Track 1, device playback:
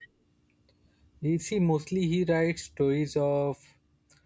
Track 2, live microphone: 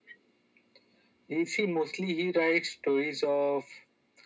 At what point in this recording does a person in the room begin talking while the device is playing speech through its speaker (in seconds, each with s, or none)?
none